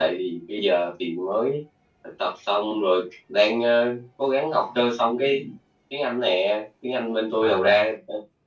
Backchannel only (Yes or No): Yes